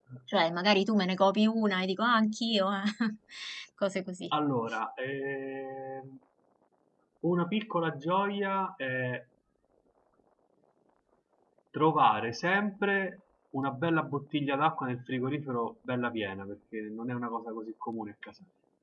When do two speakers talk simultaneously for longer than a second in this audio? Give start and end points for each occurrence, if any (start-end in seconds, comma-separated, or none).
none